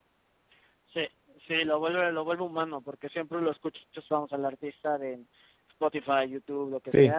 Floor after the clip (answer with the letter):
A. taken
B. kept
A